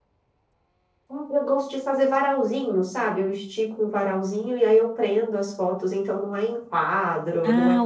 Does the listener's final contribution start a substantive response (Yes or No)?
Yes